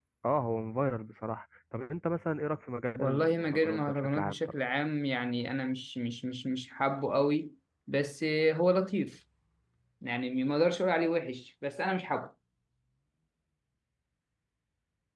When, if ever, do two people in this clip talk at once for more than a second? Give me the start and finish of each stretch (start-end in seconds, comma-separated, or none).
2.9-4.4